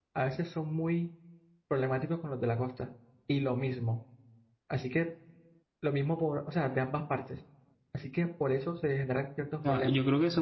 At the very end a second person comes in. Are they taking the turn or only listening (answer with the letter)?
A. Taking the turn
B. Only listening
A